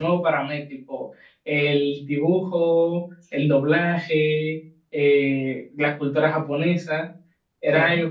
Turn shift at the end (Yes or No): No